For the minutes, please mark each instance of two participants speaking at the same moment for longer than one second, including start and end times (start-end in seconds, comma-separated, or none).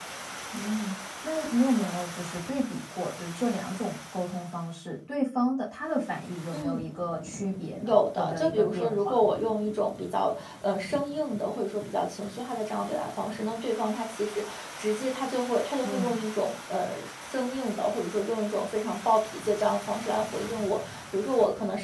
7.8-9.2